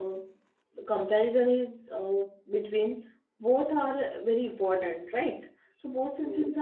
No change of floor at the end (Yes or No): Yes